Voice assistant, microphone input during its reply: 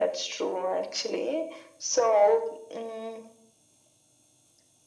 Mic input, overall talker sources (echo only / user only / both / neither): echo only